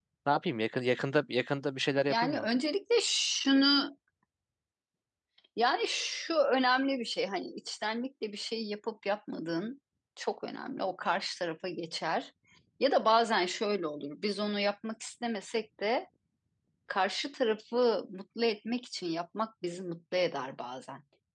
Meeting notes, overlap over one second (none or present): none